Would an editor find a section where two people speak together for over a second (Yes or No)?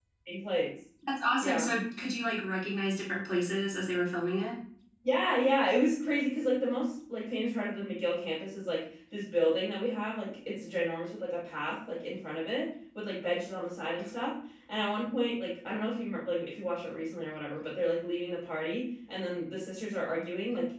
No